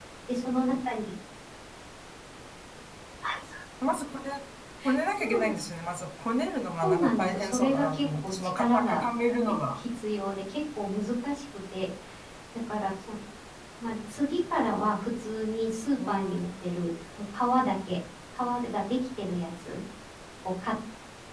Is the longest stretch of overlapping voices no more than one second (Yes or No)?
No